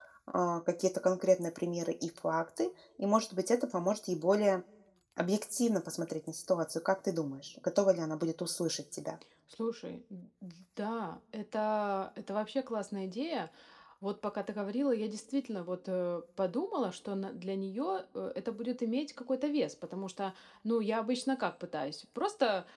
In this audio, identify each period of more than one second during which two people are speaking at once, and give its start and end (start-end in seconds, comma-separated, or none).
none